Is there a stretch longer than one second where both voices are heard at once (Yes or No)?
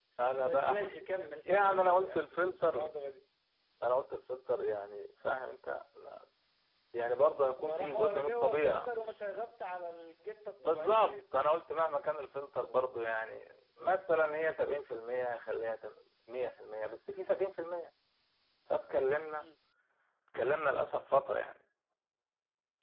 Yes